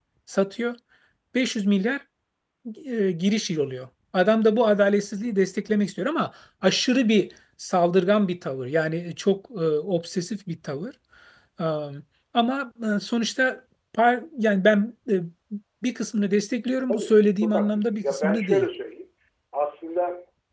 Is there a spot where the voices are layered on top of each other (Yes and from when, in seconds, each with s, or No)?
Yes, from 16.9 s